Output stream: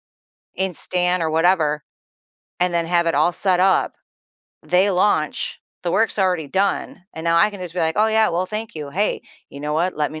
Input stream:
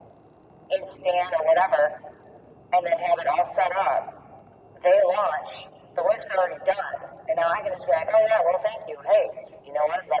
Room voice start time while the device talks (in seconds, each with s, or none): none